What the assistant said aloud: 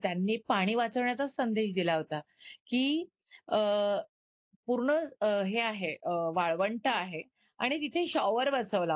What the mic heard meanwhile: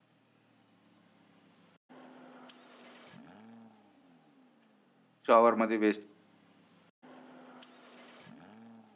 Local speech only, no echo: शॉवर मध्ये वेस्ट

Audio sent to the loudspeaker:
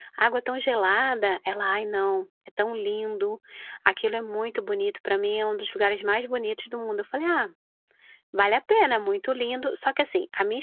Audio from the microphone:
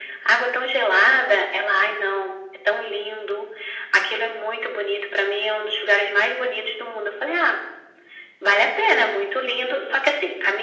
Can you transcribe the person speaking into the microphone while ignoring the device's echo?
none

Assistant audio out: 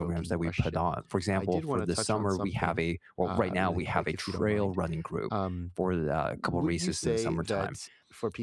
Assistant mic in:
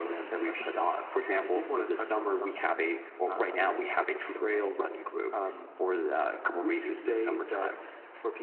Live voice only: none

